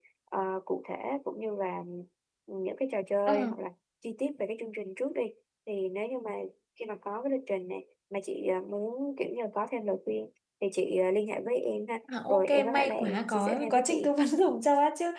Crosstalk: present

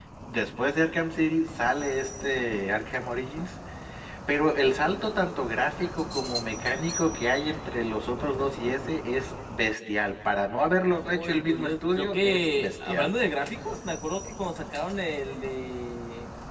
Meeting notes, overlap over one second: present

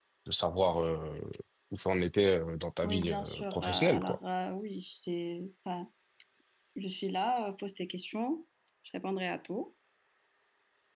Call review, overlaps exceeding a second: present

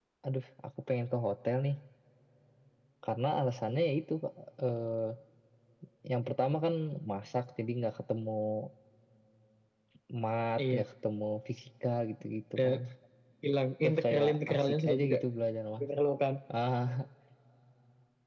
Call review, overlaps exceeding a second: present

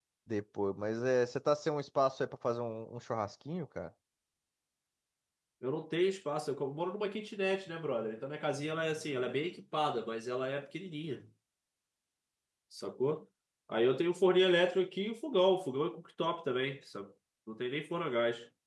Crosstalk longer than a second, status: none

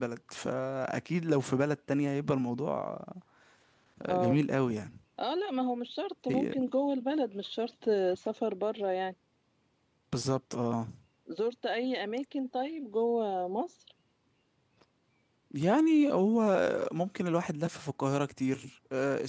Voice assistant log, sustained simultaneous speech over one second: none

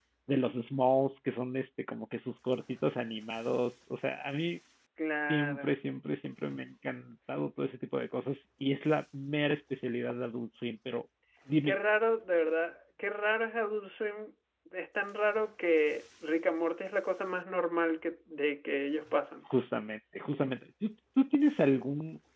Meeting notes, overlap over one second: none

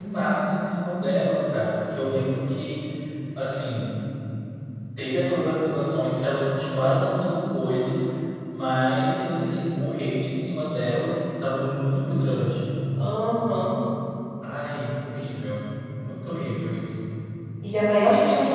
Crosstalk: none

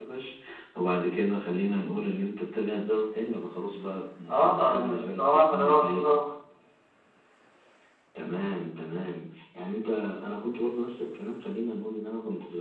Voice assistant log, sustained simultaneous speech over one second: present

